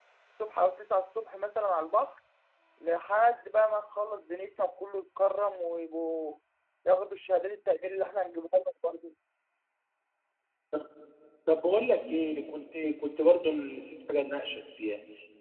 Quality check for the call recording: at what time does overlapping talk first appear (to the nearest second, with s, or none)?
none